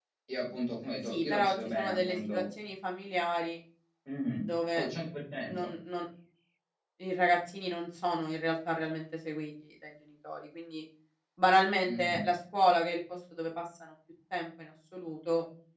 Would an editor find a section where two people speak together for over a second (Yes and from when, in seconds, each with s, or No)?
Yes, from 1.0 s